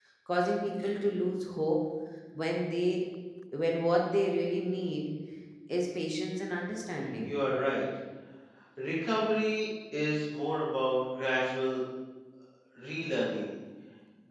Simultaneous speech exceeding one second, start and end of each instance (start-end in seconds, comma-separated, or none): none